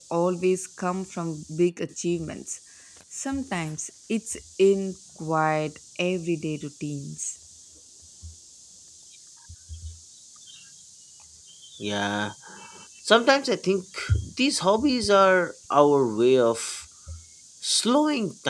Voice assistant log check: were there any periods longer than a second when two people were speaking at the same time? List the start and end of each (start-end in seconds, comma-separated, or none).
none